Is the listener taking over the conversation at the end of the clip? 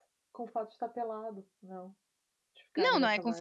Yes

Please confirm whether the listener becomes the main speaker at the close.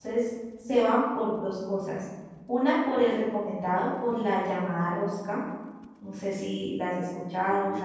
Yes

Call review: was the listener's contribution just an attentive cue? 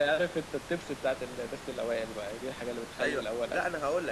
No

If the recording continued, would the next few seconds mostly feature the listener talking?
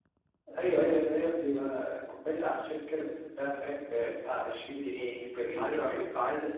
Yes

